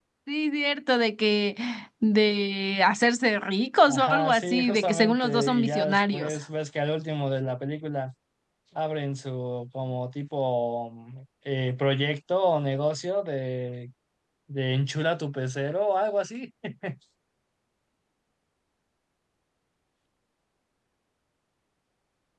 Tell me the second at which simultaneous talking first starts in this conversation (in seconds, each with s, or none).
3.9 s